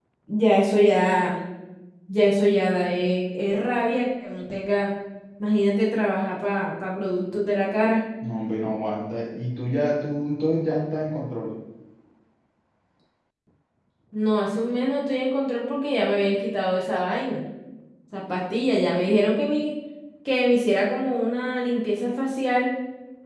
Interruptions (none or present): none